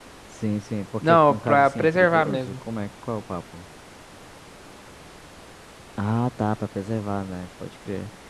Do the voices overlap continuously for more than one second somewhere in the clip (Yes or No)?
Yes